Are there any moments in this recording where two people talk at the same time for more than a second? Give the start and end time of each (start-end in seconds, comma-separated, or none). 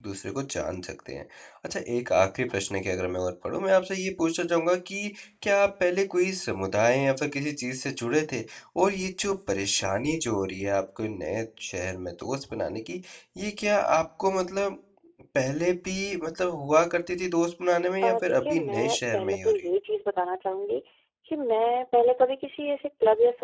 18.0-19.6